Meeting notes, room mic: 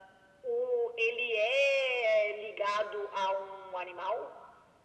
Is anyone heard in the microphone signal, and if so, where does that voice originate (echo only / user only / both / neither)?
echo only